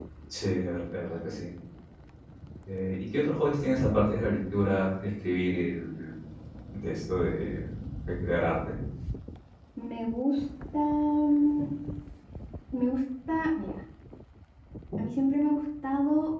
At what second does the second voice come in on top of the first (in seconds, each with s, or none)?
none